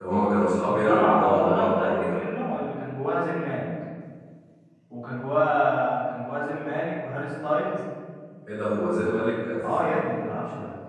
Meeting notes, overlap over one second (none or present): present